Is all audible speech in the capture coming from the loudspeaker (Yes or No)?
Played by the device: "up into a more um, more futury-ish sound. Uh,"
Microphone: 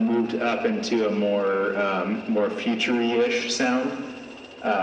Yes